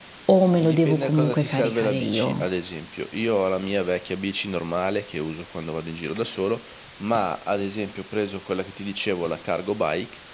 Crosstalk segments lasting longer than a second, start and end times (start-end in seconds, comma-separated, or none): 0.6-2.5